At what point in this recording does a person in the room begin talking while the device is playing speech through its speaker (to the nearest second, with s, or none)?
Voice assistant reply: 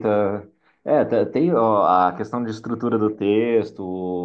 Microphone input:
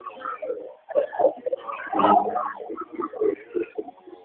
2 s